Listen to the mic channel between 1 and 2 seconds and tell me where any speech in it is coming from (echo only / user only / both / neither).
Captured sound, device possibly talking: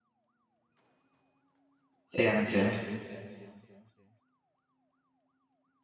neither